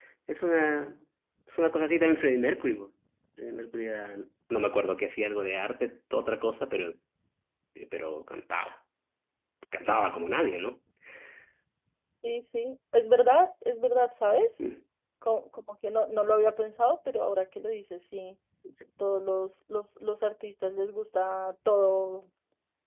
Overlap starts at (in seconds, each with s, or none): none